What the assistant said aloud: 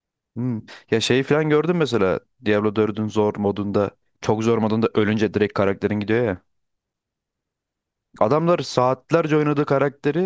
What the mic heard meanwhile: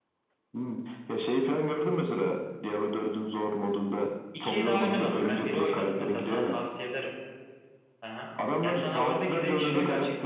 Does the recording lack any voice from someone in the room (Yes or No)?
No